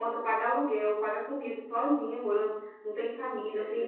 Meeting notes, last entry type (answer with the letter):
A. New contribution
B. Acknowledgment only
B